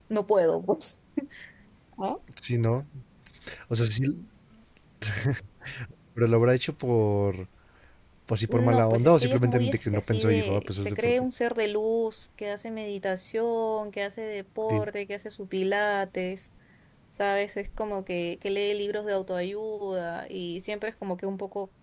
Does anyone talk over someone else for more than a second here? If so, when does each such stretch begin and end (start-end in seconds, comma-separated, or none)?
8.5-11.3